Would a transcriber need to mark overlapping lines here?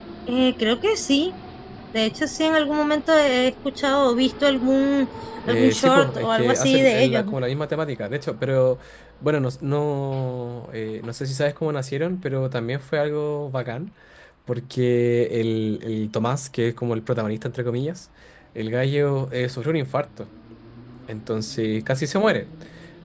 Yes, from 5.5 s

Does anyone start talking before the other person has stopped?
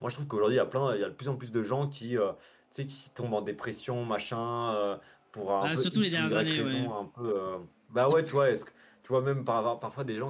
Yes, from 5.6 s

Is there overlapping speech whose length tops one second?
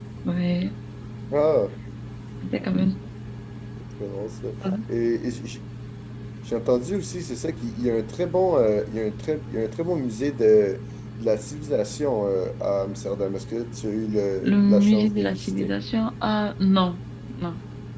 Yes, from 14.4 s

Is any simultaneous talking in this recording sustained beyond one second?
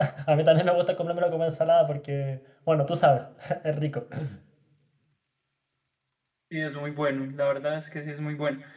No

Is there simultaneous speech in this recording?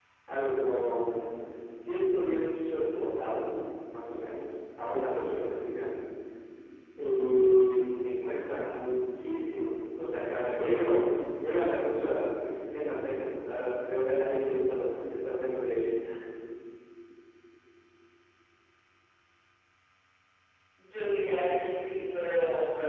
No

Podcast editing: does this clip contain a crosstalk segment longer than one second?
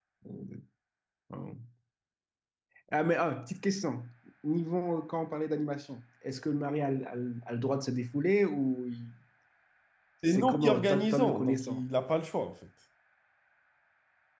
Yes, from 10.3 s

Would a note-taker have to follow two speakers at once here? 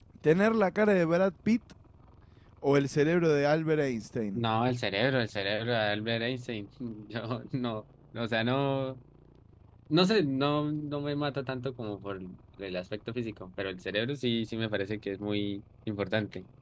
No

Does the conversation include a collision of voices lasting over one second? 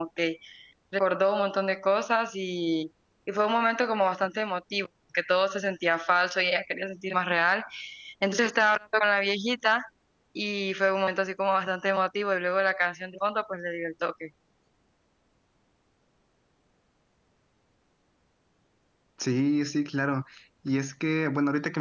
No

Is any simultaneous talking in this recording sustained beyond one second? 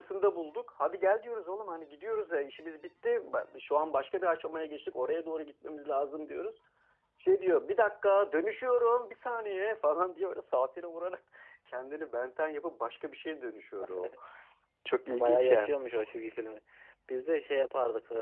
No

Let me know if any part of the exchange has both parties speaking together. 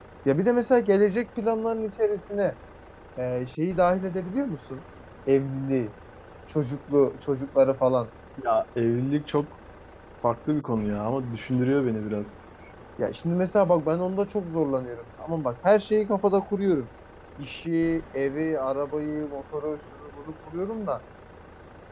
No

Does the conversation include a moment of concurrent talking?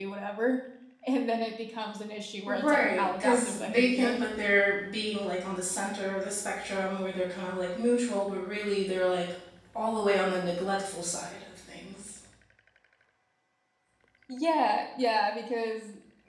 Yes, from 2.5 s

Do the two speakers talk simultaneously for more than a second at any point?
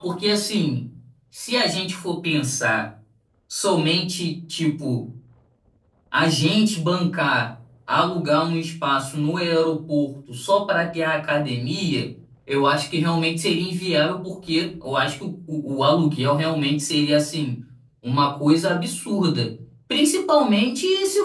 No

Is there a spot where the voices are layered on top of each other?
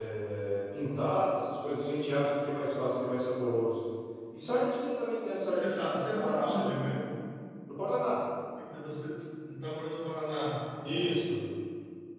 Yes, from 5.5 s

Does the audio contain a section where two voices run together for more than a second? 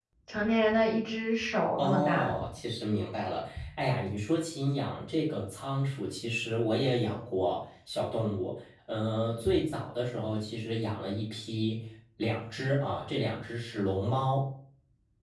No

